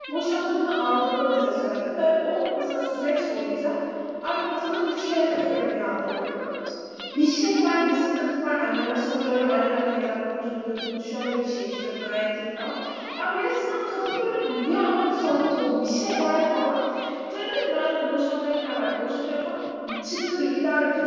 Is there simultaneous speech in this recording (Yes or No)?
No